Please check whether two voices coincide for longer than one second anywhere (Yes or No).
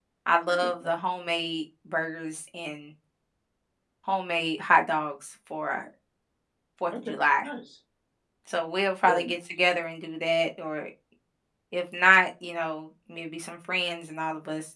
No